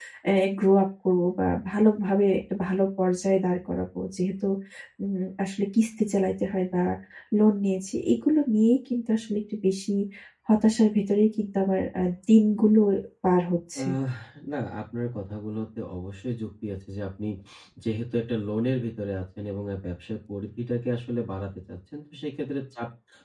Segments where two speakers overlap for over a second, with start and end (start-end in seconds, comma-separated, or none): none